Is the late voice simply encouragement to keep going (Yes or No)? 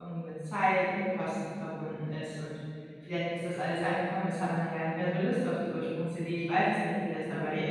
No